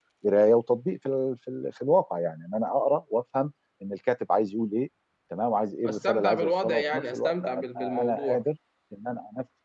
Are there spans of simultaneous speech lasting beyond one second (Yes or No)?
Yes